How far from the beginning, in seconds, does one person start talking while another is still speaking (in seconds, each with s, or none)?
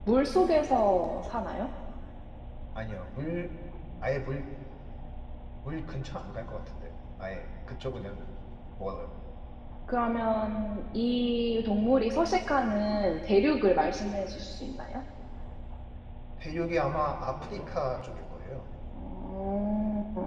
none